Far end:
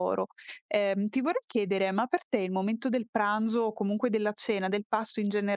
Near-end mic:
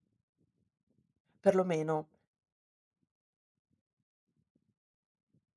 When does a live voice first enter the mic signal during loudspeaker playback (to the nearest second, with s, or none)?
1 s